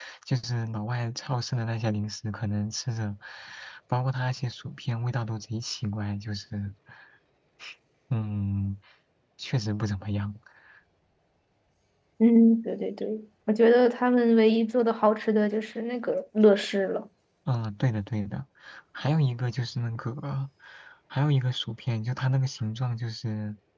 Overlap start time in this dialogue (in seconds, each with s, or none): none